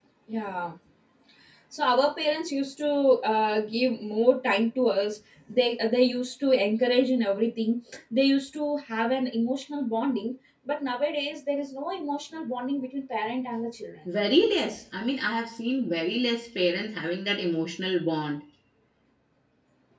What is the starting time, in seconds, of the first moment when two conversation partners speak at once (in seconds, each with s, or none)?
none